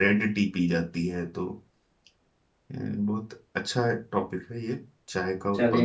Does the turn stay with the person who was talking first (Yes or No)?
No